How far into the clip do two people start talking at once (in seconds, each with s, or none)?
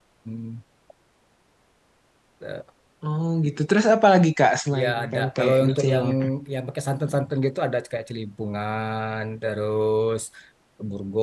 4.7 s